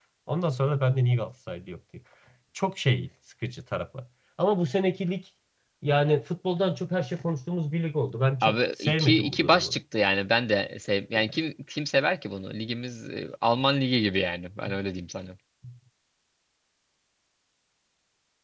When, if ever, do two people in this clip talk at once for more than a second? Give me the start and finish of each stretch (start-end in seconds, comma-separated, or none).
8.4-9.8